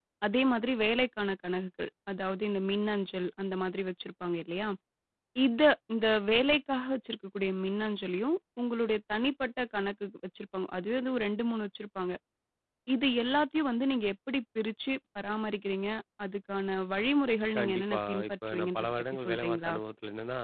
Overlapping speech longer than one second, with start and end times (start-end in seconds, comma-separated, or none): 17.6-19.7